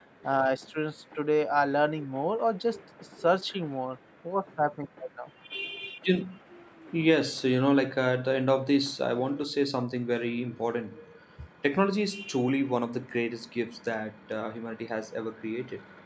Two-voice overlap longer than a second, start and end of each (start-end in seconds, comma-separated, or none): none